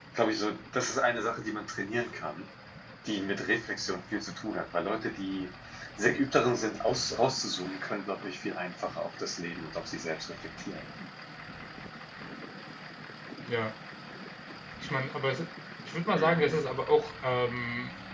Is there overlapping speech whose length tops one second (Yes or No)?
No